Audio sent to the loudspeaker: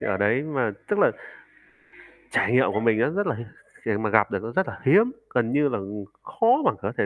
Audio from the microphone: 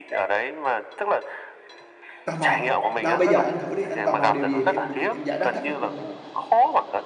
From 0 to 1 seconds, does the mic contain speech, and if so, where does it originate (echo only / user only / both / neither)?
echo only